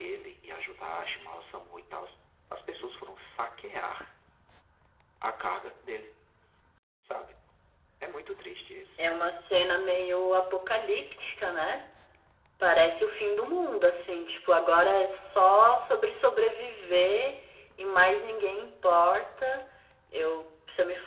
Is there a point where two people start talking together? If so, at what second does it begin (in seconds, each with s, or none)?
none